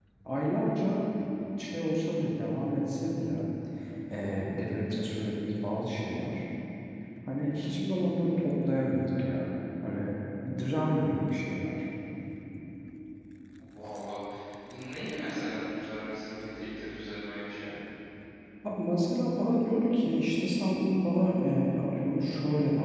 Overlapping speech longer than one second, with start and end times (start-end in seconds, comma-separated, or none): none